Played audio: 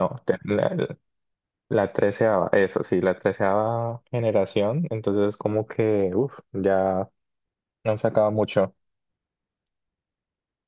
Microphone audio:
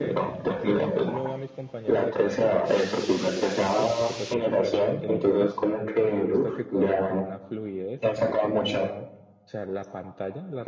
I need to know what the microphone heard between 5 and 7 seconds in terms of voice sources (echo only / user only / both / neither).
both